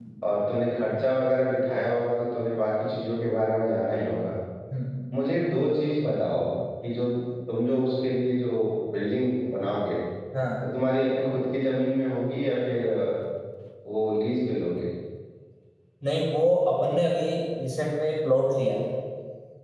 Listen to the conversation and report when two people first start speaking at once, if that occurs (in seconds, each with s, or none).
none